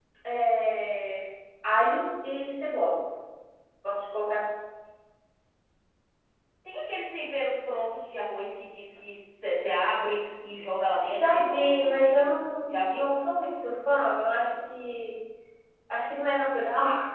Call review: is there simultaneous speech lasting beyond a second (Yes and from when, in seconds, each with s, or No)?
Yes, from 11.1 s